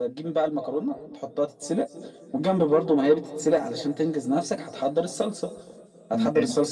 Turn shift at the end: No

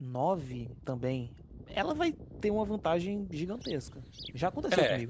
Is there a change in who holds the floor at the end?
Yes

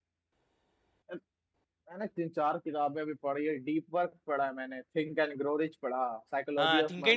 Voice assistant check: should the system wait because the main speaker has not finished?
No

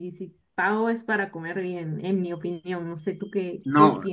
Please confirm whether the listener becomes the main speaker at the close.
Yes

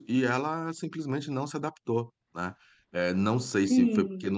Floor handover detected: No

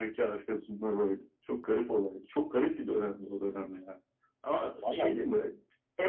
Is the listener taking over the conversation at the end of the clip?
No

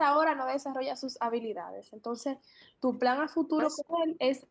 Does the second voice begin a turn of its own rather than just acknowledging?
No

